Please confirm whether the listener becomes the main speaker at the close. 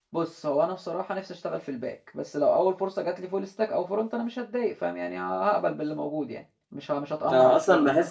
Yes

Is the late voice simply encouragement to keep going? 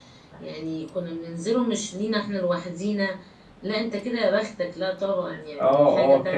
No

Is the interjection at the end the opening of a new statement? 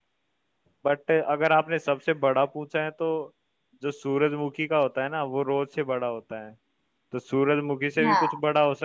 No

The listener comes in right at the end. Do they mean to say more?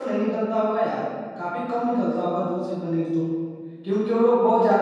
No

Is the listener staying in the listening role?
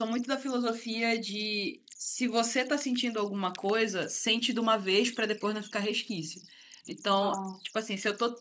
Yes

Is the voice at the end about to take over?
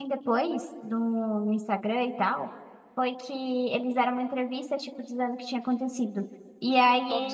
No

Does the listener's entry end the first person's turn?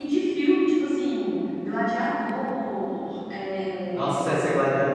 Yes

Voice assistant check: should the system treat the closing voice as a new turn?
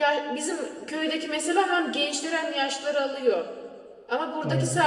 No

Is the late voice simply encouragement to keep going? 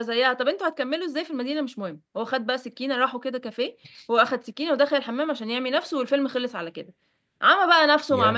Yes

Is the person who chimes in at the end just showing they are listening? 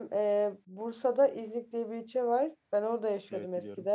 Yes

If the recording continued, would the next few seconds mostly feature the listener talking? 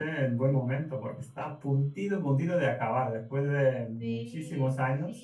Yes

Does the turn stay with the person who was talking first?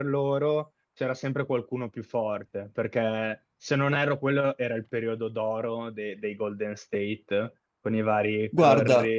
Yes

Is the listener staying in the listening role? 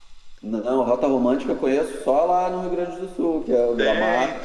No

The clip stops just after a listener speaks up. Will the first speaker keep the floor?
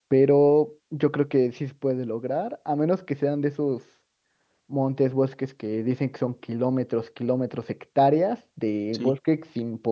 Yes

